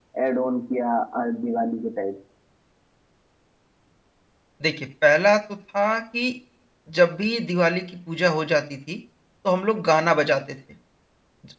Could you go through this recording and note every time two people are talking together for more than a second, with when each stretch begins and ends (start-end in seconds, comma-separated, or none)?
none